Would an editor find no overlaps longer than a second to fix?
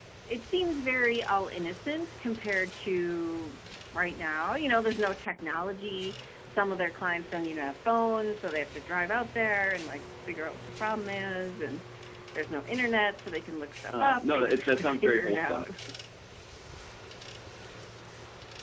No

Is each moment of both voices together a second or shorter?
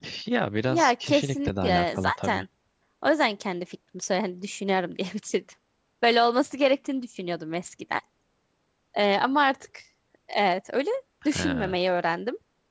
No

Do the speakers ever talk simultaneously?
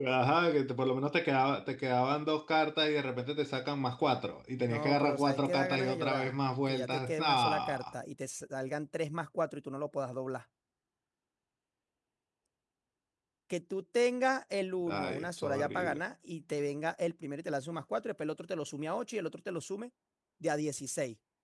Yes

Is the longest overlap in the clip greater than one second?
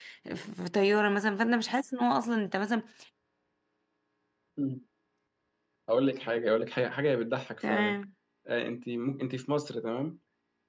No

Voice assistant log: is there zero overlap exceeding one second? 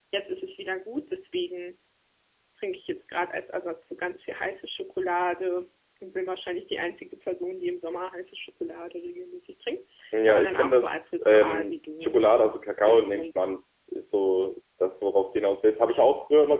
No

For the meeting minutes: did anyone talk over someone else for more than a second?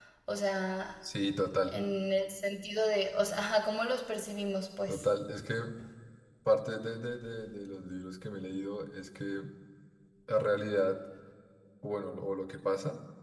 No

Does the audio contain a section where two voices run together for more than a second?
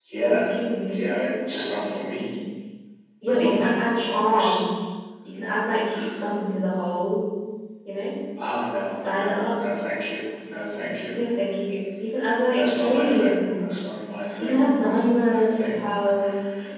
Yes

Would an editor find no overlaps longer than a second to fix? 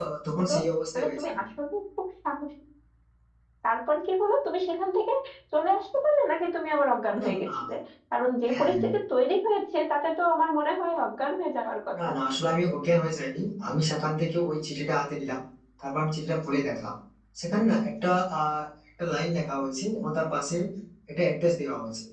Yes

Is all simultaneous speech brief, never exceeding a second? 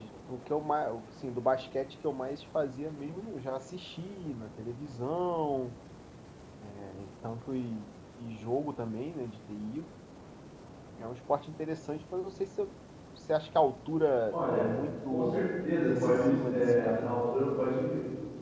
No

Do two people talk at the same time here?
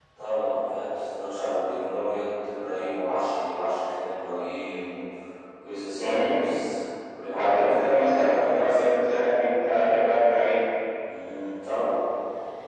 Yes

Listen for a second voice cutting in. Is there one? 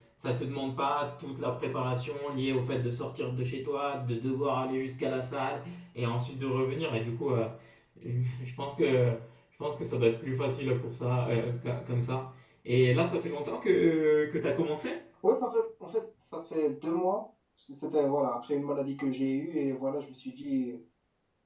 No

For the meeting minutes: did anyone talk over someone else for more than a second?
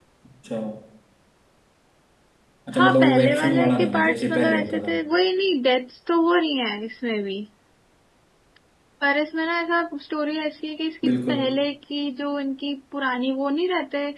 Yes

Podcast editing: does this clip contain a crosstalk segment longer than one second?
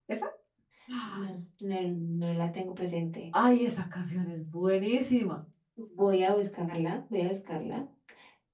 No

